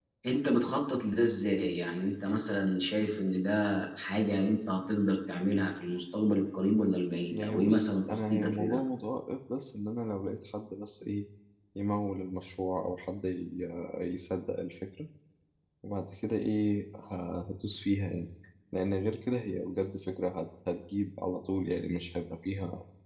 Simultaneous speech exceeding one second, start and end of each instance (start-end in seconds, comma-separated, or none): 7.3-8.8